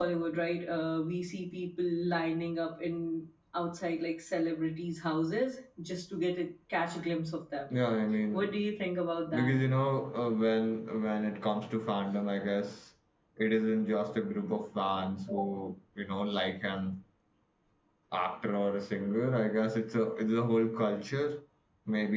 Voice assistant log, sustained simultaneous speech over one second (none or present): none